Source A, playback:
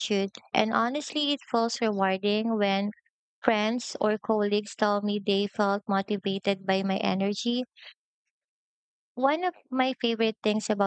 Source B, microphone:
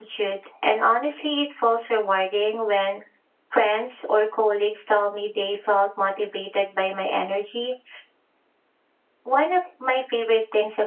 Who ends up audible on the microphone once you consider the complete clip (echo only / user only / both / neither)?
echo only